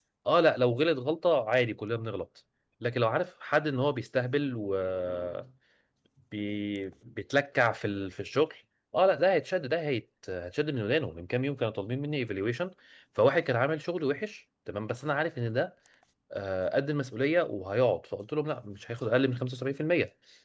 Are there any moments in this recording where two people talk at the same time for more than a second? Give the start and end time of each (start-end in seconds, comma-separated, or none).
none